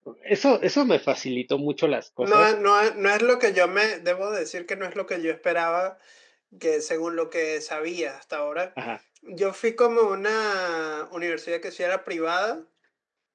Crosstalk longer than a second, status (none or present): none